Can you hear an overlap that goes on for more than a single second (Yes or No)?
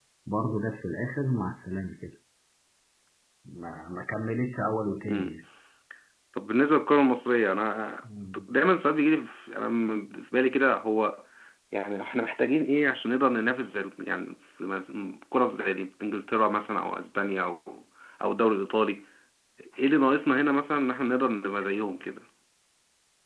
No